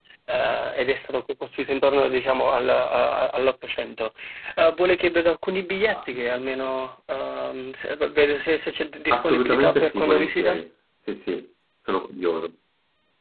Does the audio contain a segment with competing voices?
Yes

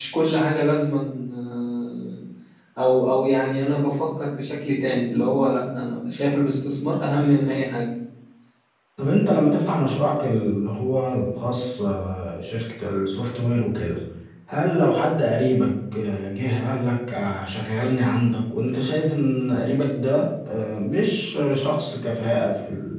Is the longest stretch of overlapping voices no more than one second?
Yes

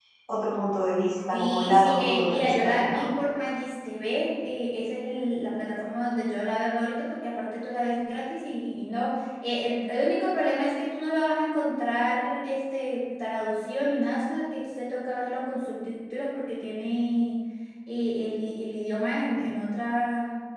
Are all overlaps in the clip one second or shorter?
No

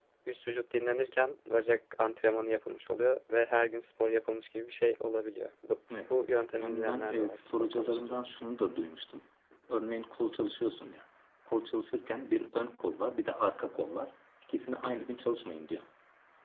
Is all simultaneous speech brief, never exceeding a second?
No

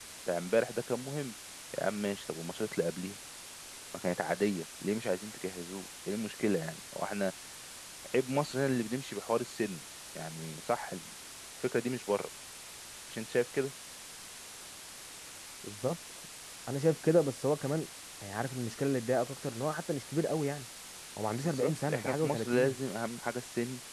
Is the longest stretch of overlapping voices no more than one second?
No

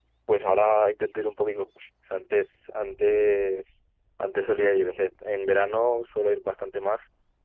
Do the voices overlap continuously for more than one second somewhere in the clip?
No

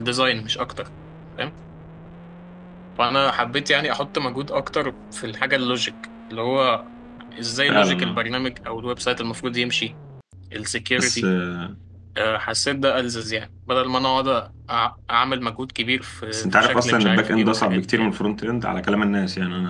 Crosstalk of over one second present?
Yes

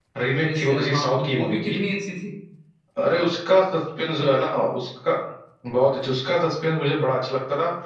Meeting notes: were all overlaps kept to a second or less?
No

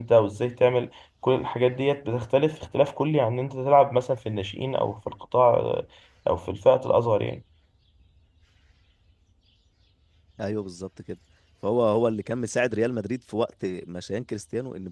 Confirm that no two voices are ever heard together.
Yes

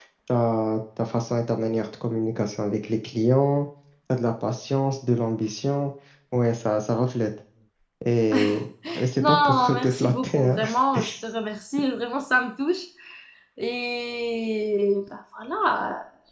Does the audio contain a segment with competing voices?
Yes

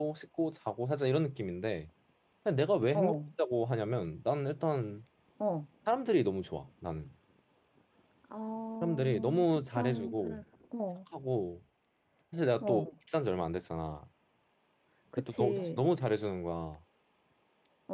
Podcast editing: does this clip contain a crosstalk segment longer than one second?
Yes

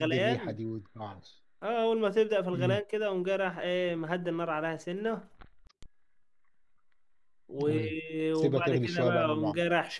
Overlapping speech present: Yes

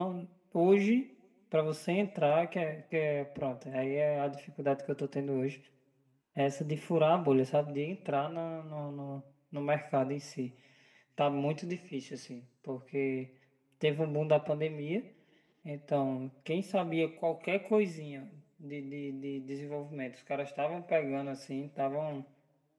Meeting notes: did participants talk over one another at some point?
No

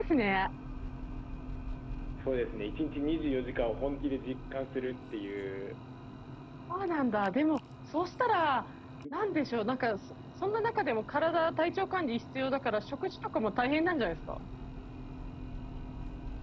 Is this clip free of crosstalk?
Yes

